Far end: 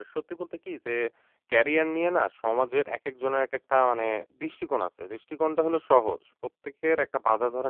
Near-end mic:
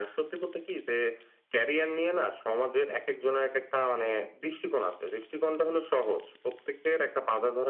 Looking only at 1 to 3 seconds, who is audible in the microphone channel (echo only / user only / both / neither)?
echo only